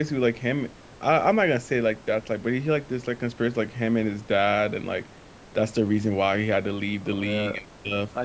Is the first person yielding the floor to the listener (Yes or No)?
Yes